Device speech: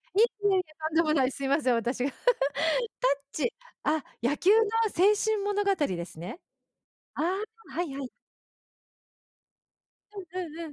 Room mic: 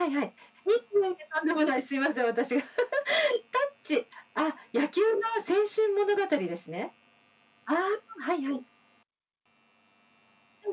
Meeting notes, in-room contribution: none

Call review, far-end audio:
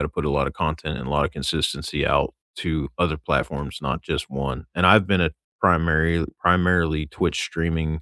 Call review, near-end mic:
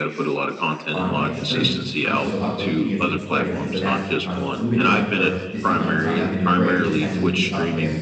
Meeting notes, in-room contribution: present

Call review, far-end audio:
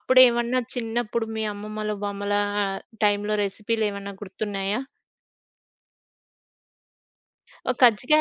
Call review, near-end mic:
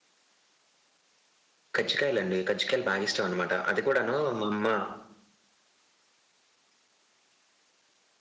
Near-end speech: present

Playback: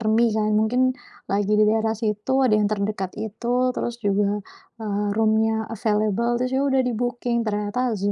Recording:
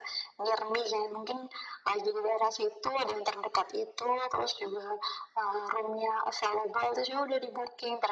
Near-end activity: none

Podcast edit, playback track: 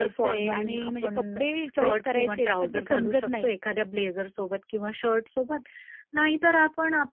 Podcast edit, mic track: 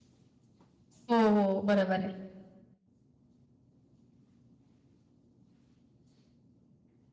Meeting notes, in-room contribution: present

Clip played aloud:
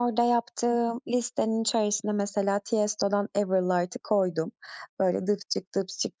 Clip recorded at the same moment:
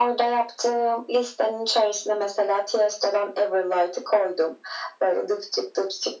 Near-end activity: none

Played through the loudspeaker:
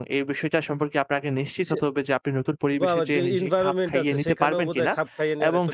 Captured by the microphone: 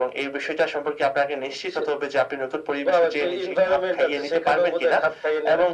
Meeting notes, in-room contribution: none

